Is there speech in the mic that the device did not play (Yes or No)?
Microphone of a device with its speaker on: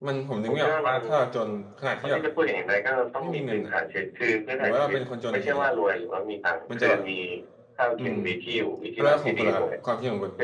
Yes